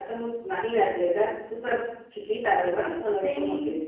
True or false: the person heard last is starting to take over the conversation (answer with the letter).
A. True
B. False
A